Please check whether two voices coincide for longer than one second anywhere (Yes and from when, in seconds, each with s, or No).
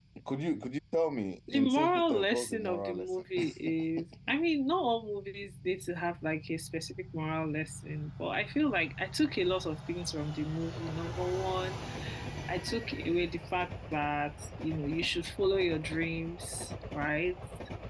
Yes, from 1.5 s